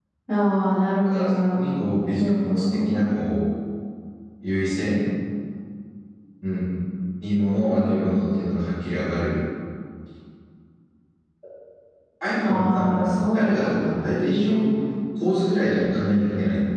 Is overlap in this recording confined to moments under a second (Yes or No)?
No